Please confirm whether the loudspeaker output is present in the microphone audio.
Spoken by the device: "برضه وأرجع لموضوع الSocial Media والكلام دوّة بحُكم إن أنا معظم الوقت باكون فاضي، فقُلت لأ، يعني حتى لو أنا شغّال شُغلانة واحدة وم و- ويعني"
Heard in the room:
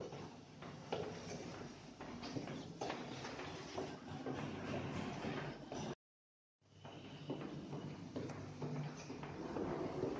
No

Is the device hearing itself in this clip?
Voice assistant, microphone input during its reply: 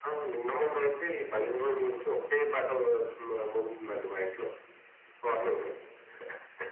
Yes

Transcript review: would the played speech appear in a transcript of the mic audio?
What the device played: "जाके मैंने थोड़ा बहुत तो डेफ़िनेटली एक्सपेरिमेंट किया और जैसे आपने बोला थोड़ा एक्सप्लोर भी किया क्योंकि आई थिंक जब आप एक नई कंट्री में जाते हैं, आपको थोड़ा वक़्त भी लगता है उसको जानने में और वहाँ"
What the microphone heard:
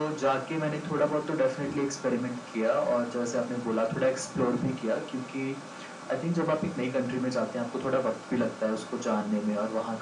Yes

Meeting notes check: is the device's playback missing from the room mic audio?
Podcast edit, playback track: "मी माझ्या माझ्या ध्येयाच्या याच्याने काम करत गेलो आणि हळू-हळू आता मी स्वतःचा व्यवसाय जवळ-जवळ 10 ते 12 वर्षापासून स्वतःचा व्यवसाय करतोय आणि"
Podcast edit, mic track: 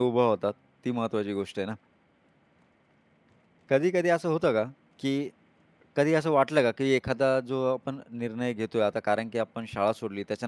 Yes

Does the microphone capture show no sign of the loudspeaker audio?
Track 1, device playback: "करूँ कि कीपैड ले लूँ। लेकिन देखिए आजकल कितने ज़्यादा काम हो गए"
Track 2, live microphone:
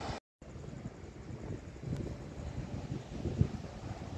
Yes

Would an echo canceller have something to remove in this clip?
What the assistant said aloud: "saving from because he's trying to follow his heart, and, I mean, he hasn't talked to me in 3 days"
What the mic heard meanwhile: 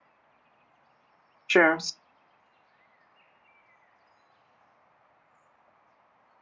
No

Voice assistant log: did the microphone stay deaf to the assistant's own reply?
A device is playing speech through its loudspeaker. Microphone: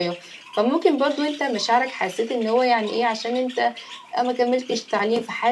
Yes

